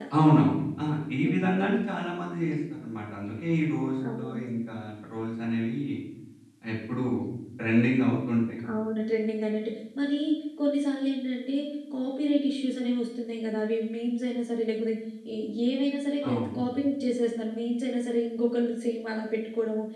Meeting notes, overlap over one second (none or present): none